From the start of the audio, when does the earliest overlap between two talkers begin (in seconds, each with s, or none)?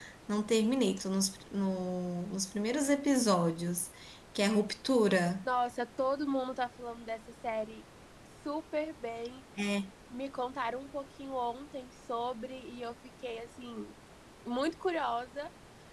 none